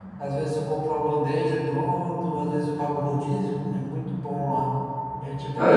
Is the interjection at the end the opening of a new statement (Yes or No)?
No